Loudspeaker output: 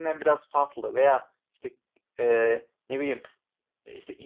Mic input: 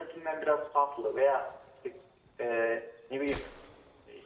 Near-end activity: none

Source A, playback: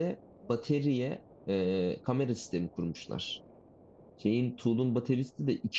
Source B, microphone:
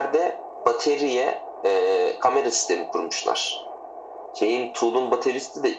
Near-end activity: none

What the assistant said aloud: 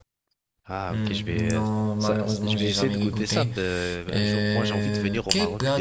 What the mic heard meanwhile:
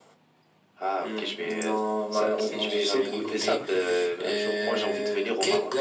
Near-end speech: present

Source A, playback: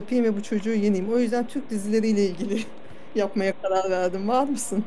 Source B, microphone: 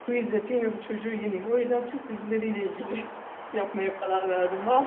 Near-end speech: none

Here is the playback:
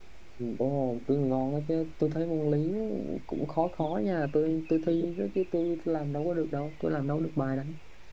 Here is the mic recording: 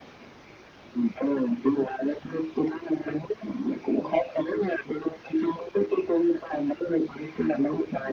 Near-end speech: none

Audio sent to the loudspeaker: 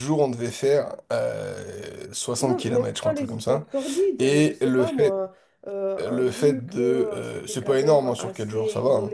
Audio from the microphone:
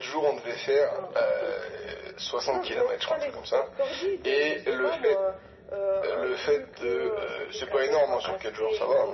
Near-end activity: present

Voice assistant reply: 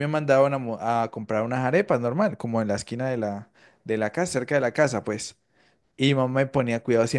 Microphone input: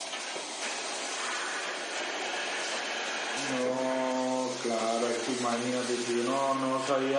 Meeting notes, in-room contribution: present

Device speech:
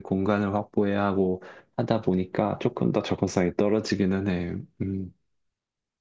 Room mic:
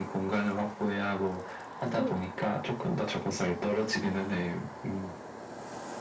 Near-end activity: present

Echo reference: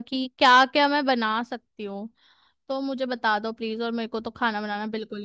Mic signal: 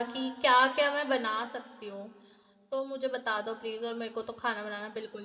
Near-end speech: none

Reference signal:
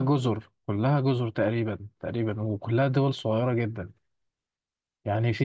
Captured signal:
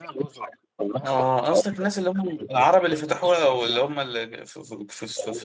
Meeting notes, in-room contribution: present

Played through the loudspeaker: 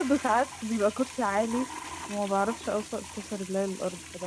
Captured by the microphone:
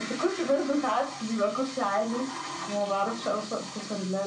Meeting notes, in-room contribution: none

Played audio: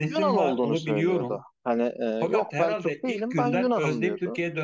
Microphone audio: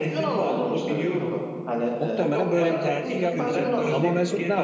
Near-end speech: present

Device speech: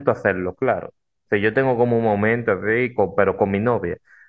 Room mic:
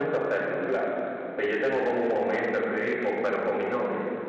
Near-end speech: none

